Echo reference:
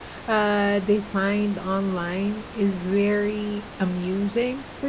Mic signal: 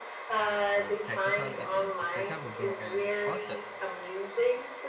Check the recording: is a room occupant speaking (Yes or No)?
Yes